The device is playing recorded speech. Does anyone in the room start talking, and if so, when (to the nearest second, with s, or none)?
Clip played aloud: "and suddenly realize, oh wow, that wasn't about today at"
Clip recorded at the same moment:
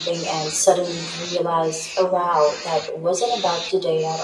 none